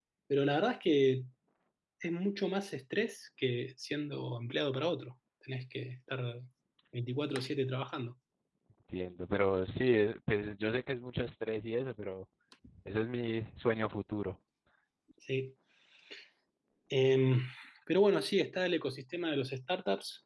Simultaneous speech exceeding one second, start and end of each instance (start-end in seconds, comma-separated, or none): none